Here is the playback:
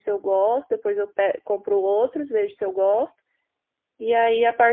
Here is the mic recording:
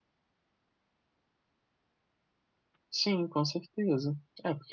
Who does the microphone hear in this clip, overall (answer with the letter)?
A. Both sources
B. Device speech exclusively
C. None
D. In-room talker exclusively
D